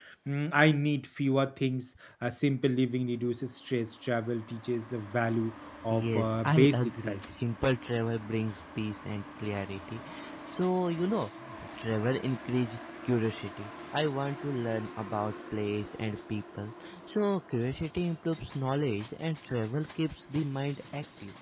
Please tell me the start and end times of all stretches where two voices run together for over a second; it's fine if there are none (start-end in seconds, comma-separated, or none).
5.9-7.2